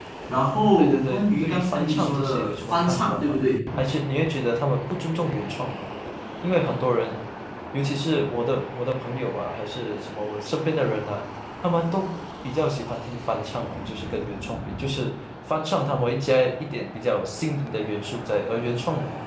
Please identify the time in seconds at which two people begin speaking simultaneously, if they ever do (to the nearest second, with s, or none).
1 s